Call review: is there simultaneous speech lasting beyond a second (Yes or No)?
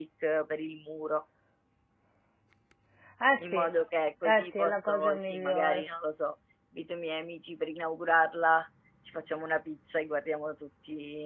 Yes